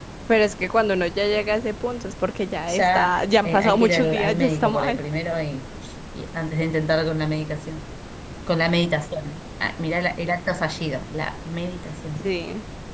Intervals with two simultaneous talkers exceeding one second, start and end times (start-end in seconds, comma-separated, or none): 2.8-5.0